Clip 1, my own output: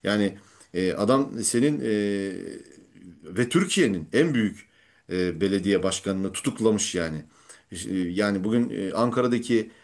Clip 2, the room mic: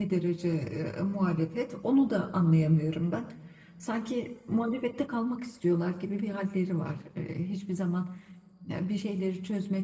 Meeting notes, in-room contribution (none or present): present